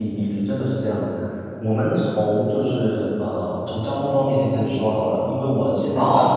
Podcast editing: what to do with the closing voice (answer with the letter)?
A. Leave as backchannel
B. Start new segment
A